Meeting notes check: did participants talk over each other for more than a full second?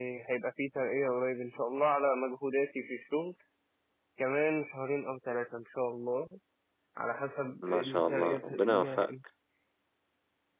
Yes, from 7.7 s

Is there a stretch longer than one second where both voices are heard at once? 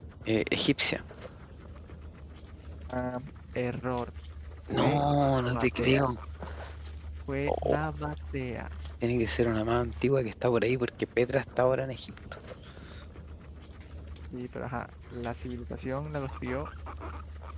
Yes, from 4.7 s

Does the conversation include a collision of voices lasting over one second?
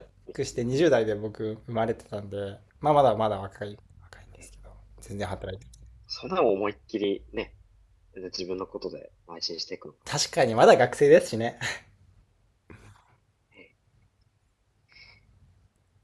No

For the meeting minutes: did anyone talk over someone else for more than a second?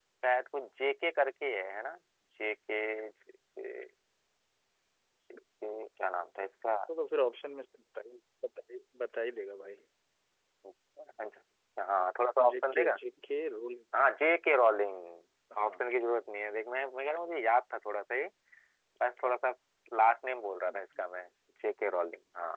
No

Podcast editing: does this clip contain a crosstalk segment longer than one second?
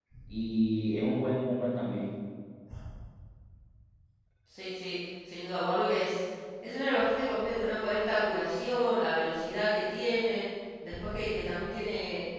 No

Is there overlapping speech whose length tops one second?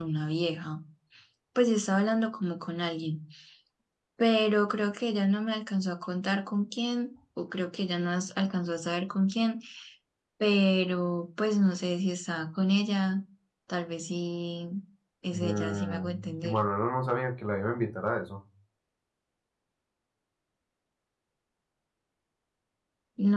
Yes, from 15.3 s

